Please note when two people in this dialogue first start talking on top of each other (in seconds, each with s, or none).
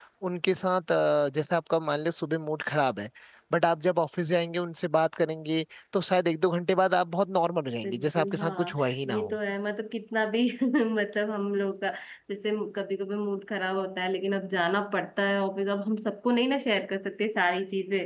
7.8 s